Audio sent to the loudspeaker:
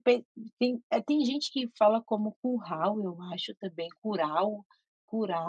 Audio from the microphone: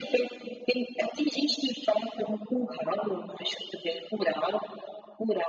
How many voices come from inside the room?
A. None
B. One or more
A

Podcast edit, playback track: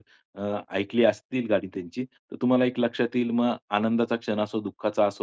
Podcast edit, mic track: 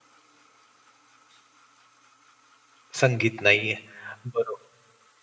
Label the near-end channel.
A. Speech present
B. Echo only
A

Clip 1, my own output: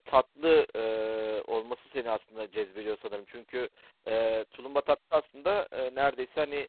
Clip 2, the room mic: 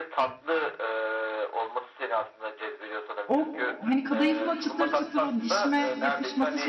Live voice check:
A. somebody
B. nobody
A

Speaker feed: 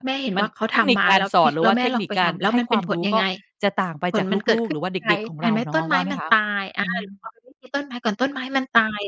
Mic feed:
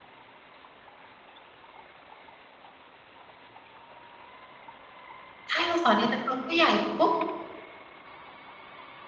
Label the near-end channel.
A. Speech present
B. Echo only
A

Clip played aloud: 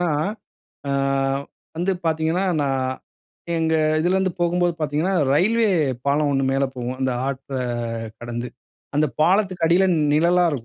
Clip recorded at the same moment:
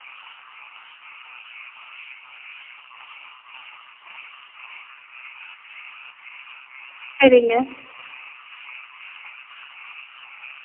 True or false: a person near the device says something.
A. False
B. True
B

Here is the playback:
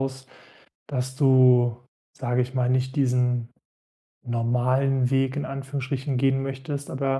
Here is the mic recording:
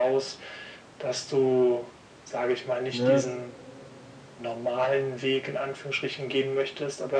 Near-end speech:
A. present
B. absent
A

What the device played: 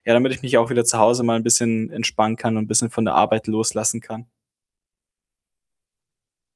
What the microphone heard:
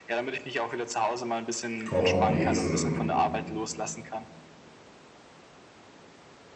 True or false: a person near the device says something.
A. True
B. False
A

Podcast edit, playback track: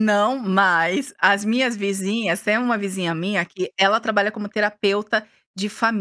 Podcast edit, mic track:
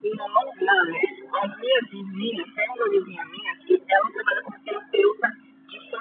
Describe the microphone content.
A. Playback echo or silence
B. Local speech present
A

